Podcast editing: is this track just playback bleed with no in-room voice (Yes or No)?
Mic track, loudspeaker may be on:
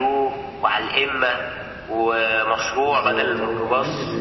No